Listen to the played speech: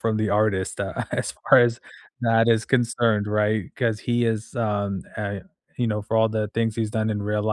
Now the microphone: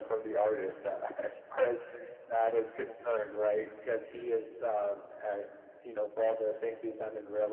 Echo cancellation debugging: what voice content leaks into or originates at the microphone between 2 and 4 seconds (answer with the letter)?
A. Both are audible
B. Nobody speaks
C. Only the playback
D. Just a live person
C